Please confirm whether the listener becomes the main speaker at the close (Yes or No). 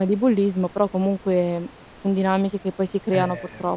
Yes